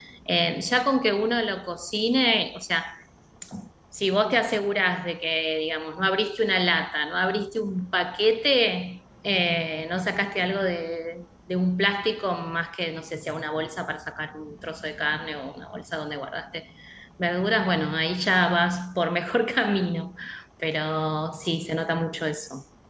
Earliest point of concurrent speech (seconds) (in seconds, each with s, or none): none